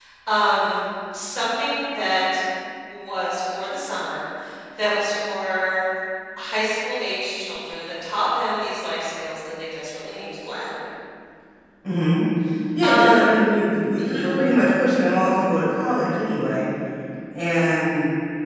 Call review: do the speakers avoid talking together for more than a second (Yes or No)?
Yes